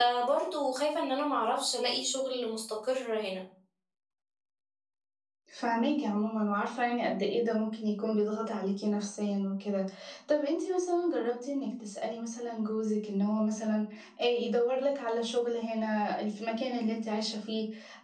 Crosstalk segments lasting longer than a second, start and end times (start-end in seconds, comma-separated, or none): none